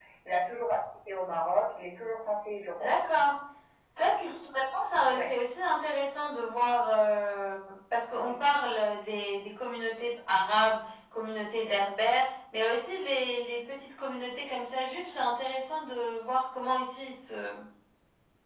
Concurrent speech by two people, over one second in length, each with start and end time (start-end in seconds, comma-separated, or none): none